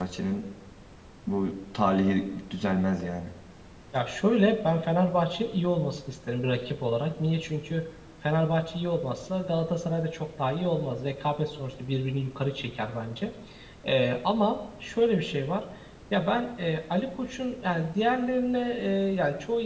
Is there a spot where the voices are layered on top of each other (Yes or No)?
No